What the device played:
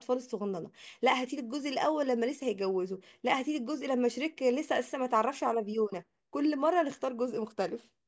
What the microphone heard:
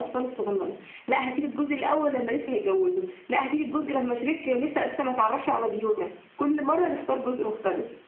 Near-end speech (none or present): none